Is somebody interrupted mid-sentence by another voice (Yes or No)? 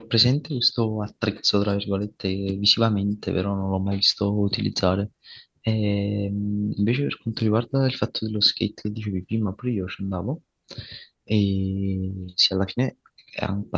No